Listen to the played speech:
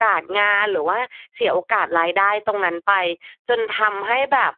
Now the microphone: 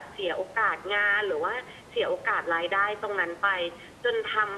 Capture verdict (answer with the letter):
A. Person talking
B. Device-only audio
B